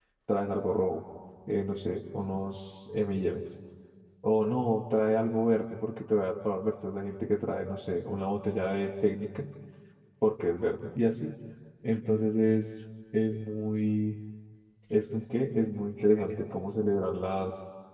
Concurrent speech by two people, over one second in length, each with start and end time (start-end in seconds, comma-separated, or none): none